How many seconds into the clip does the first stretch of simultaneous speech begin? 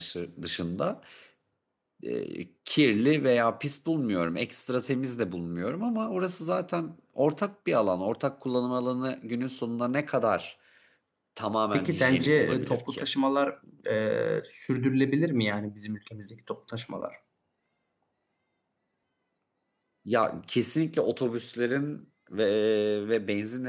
12 s

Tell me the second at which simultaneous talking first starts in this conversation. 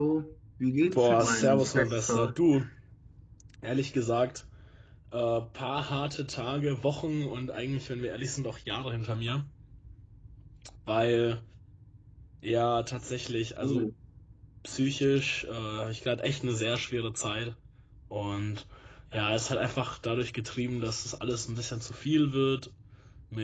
1 s

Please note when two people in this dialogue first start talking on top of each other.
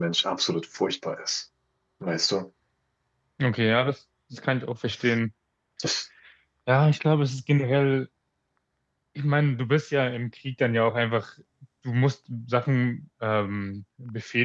none

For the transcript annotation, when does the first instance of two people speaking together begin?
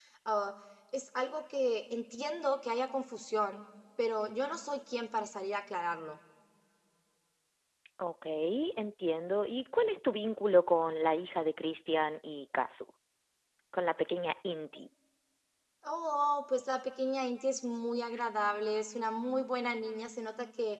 none

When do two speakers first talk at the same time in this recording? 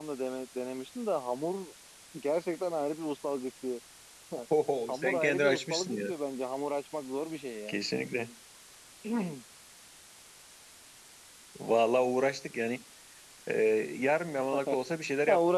5 s

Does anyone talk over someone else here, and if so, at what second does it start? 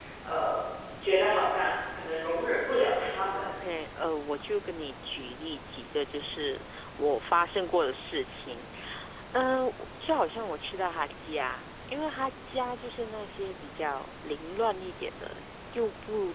none

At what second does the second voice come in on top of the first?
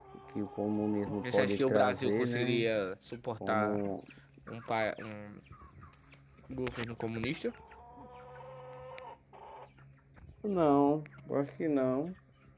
1 s

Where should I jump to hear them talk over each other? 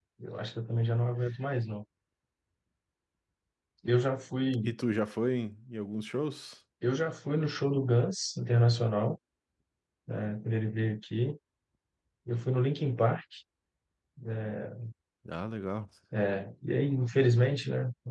none

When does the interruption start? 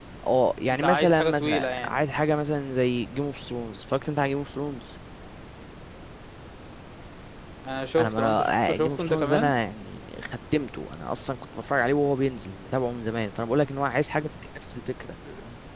1 s

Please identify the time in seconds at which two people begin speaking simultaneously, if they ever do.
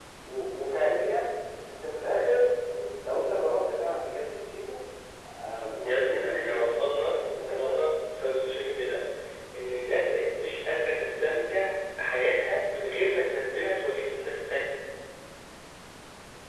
6 s

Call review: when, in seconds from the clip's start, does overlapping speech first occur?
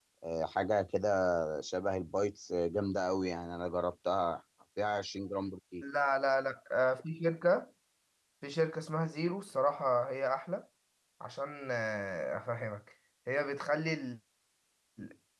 none

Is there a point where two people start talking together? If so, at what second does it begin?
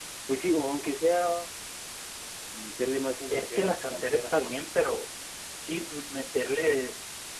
3 s

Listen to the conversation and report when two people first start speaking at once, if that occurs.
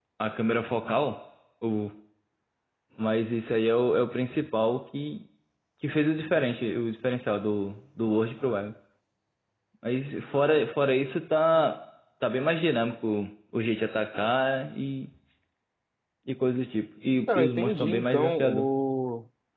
17 s

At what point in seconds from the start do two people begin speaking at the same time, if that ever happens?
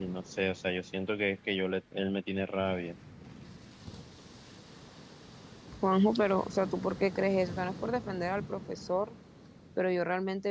none

